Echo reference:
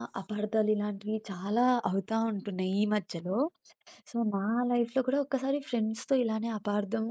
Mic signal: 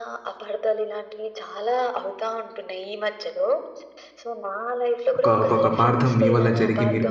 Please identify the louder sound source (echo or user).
user